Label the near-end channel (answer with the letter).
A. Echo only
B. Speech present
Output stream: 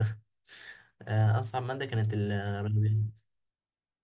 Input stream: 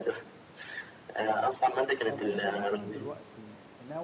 B